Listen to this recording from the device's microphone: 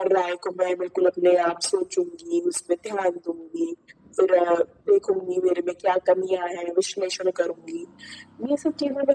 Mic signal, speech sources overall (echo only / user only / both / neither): echo only